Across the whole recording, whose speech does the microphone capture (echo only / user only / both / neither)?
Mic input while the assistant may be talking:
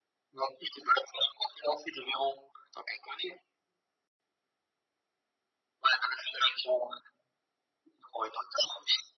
echo only